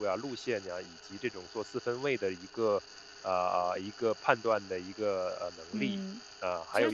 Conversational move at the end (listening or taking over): taking over